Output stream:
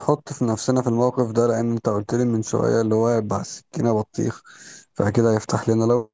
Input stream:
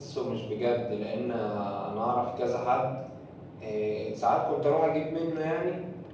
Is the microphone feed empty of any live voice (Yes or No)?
No